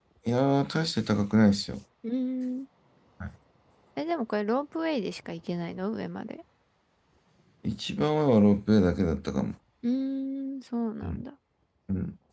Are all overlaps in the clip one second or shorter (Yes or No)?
Yes